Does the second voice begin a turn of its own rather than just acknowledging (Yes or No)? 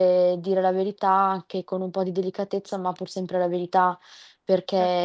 No